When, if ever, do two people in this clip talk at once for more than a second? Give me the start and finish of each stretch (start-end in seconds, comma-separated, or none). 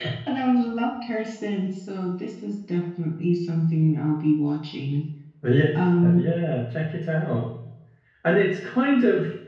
none